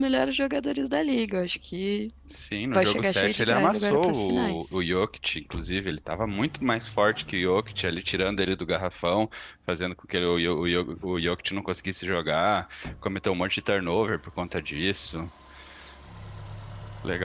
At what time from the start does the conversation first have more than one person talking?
2.7 s

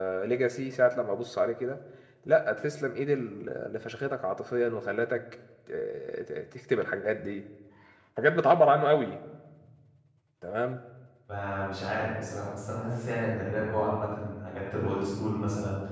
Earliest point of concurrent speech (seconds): none

